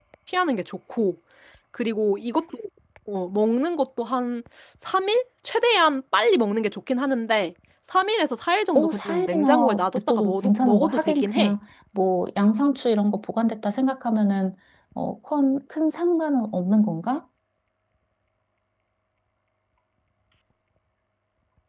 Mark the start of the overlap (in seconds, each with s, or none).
8.8 s